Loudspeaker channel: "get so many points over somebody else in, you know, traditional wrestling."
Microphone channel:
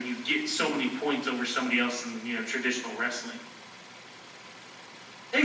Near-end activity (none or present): none